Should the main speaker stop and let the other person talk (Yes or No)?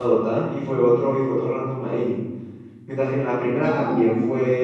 No